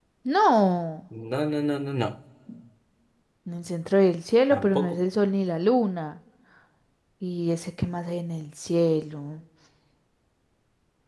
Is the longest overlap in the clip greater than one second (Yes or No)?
No